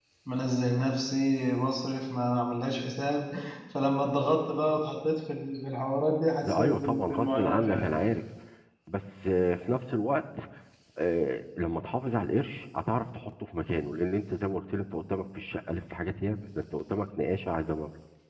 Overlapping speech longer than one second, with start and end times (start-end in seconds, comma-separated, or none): 6.4-7.8